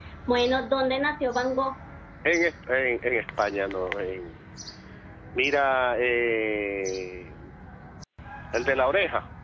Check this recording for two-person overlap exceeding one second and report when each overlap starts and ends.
none

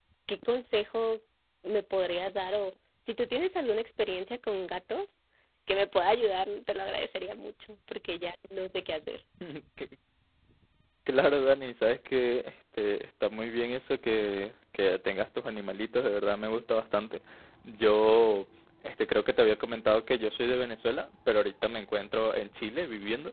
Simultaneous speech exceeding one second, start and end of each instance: none

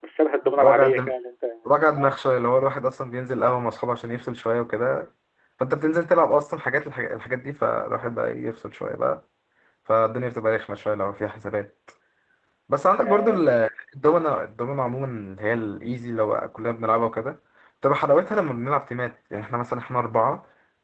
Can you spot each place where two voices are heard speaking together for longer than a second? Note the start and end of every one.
none

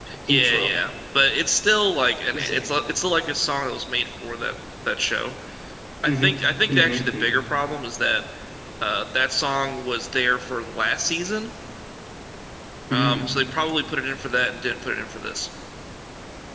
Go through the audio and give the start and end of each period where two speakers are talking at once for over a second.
6.0-7.4

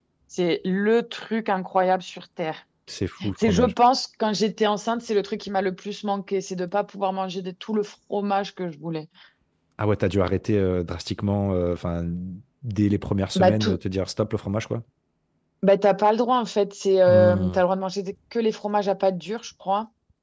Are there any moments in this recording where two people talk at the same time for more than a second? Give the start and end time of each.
none

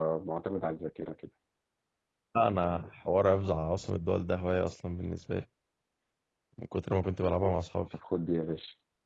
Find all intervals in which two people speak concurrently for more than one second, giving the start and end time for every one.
none

